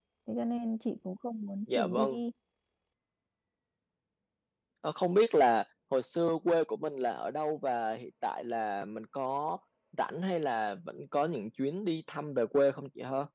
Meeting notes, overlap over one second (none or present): none